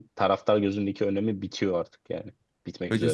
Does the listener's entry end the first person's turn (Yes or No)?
Yes